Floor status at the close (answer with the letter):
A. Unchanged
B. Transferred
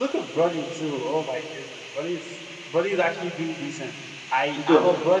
A